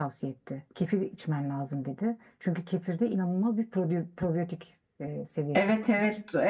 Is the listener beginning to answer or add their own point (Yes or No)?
Yes